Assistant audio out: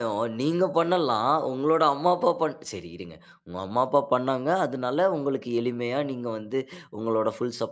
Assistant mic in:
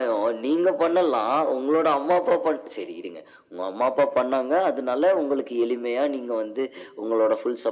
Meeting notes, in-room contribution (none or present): none